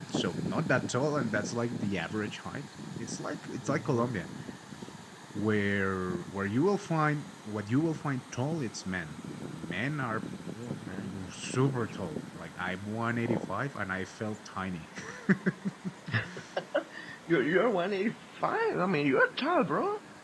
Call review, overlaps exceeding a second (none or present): none